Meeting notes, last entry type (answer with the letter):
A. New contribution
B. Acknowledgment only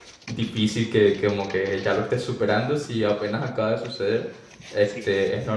B